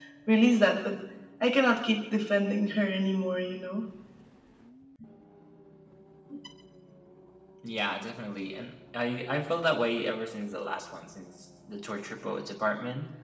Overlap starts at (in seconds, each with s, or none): none